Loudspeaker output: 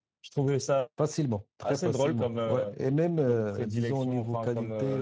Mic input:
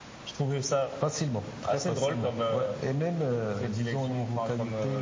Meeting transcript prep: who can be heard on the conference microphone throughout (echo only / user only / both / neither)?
echo only